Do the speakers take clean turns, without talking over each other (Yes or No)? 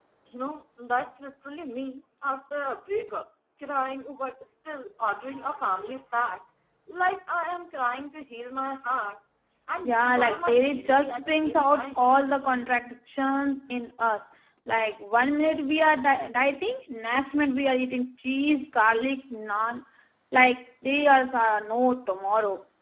No